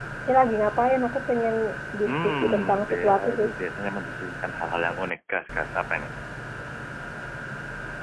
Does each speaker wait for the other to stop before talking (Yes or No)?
No